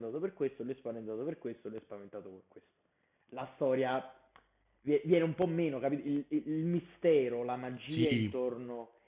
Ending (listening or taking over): listening